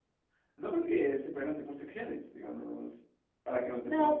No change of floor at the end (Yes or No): No